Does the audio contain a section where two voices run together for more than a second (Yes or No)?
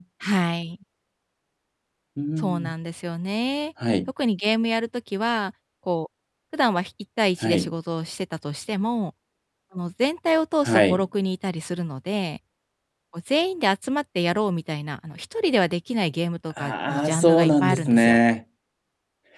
Yes